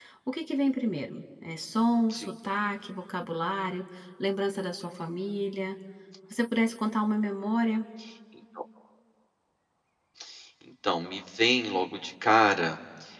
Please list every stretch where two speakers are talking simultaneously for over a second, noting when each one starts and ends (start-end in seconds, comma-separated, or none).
none